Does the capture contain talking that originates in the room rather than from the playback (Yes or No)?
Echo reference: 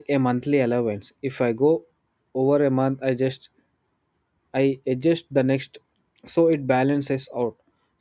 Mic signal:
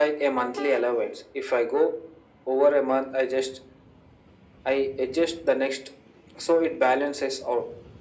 No